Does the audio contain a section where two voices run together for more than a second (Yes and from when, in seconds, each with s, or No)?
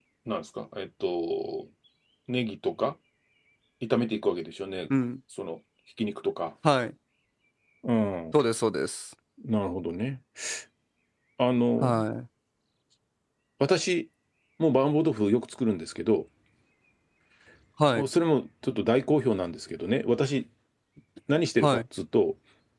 No